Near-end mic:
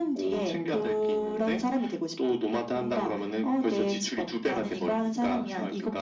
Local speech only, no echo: none

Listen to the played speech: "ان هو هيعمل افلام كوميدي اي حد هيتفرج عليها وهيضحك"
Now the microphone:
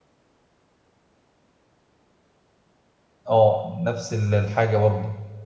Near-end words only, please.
اه نفس ال- الحاجه برضه

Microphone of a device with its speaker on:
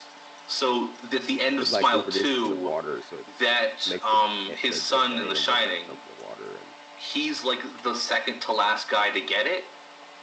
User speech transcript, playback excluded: it like reproduces in the water, so it makes the eh, the dr- the animal like jump in the water and

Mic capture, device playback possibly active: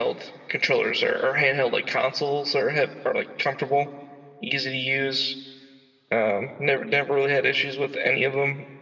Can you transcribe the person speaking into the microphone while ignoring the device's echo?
none

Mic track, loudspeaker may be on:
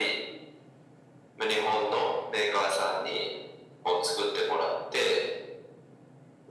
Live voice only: none

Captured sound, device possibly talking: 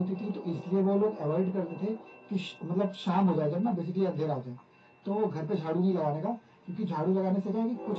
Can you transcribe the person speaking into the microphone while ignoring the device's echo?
none

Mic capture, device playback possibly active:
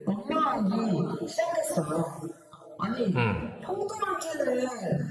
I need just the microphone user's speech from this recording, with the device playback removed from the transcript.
응,

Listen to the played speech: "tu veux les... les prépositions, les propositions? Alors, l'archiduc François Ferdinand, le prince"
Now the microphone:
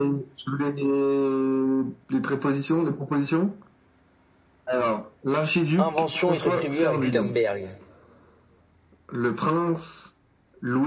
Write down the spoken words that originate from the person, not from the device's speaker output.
invention est attribuée à Gutenberg?

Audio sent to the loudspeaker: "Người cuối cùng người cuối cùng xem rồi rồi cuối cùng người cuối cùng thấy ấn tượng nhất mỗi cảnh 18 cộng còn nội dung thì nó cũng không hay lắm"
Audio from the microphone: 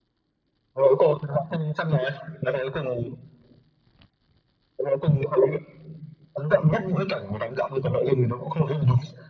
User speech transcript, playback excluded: none

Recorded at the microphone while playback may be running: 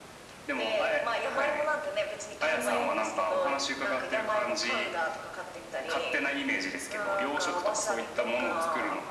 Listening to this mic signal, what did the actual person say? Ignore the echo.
ええ。

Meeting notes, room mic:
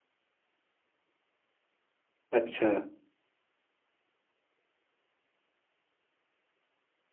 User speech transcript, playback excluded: अच्छा

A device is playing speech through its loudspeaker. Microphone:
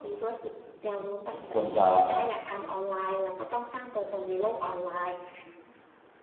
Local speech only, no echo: ผมควรจะ

